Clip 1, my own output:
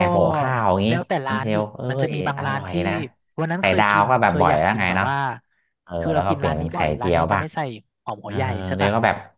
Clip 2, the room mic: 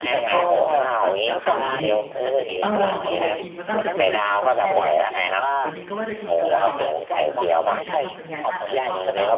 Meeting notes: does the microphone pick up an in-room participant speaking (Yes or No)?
Yes